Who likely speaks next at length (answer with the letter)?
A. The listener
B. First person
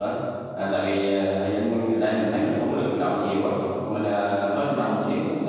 B